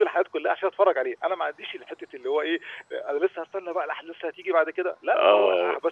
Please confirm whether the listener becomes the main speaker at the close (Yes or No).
Yes